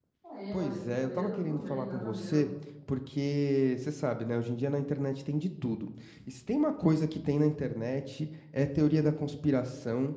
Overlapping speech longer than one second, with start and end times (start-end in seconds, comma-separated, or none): 0.5-2.4